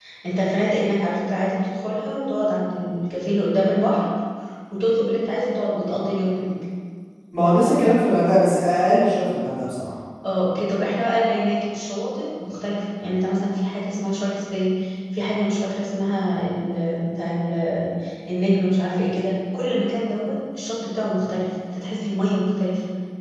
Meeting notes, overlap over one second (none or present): none